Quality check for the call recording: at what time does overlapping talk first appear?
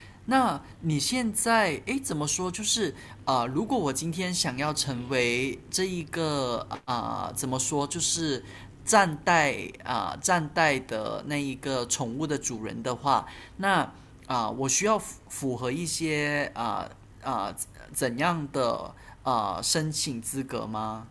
none

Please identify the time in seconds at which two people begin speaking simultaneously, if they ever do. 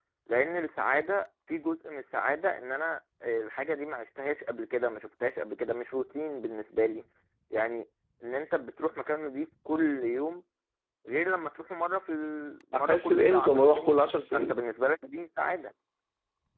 12.7 s

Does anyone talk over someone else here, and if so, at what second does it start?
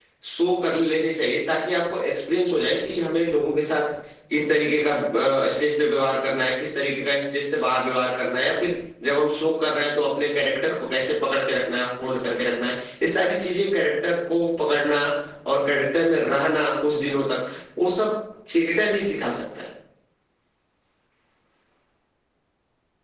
none

